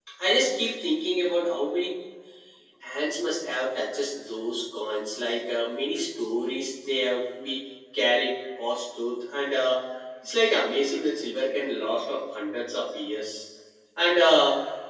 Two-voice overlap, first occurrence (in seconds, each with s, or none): none